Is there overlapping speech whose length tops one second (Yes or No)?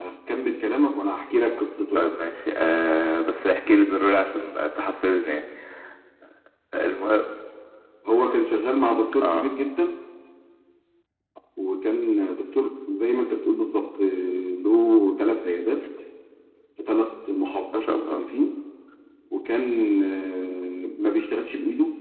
No